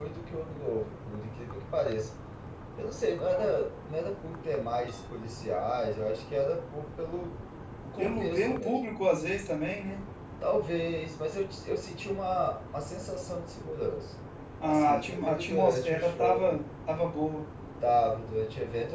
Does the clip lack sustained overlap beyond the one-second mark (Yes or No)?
No